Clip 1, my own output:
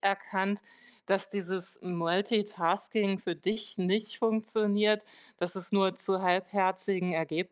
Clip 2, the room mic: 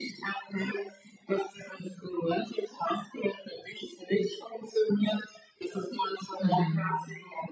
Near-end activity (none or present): present